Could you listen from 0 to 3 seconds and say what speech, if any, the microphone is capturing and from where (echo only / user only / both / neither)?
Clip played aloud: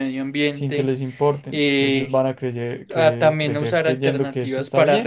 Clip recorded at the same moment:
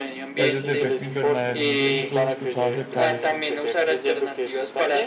both